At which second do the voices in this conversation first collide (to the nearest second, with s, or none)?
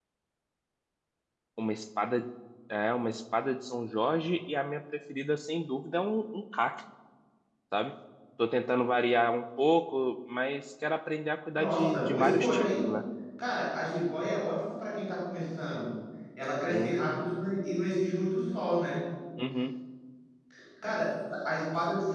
12 s